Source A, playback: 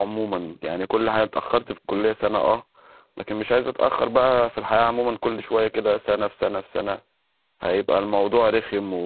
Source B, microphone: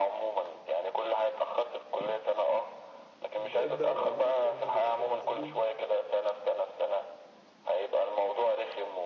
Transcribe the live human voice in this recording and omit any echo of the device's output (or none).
انت ابدا وبعدين الحاجات دي في الاخر هتيجي